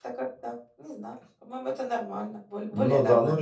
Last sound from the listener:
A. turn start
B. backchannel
A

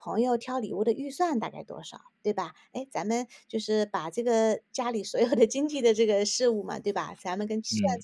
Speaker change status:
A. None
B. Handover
A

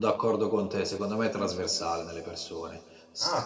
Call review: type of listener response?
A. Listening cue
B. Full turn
B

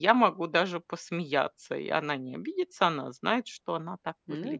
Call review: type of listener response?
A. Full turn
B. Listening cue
A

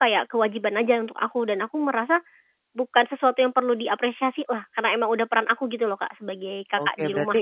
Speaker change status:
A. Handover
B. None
A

